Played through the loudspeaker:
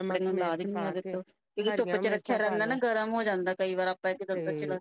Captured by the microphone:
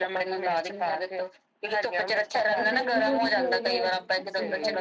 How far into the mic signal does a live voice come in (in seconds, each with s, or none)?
2.5 s